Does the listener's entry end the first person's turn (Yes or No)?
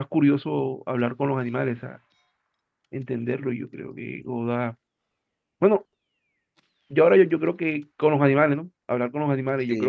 Yes